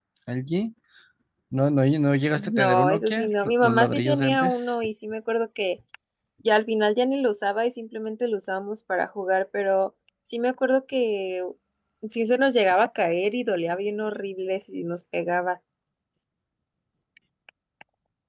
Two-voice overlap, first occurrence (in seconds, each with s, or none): 2.4 s